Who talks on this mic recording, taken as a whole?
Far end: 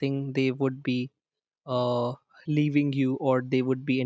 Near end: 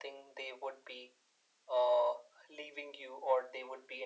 echo only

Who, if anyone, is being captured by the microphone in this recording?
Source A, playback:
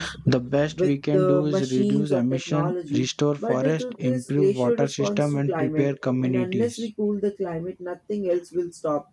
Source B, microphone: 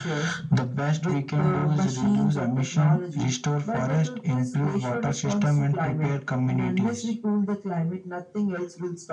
echo only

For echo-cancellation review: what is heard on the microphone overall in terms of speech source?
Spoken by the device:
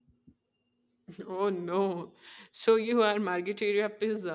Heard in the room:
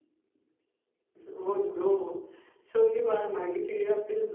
echo only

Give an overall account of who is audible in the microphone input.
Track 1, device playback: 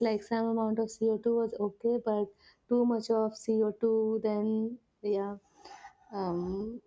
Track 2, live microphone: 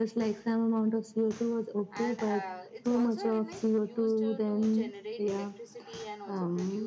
both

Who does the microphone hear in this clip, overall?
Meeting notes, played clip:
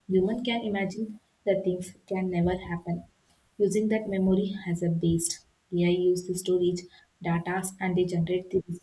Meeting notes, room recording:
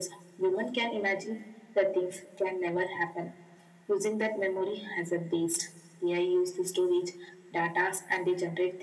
echo only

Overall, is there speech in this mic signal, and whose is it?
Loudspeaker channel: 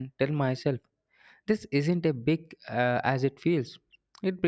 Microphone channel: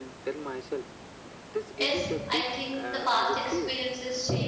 both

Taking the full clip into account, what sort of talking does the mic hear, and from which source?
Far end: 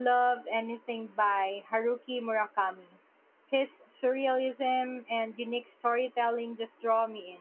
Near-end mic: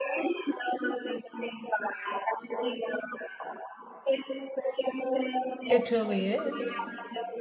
both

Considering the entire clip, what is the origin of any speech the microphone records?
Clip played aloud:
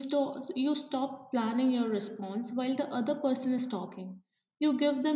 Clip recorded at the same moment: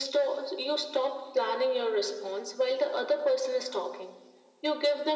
echo only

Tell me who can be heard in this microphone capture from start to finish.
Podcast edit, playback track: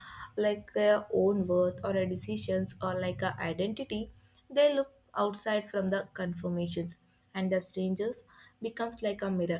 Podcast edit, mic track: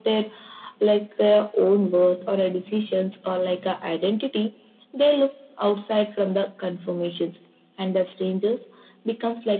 echo only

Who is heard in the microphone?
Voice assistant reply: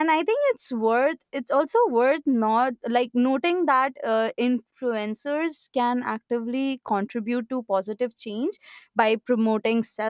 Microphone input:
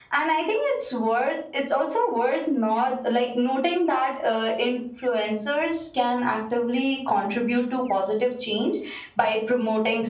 echo only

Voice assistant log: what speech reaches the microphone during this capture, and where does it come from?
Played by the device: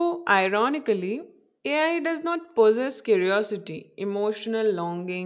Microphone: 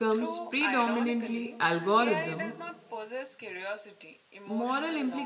both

